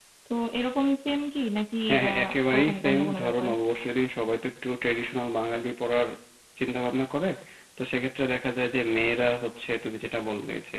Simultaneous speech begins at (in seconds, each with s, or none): 1.9 s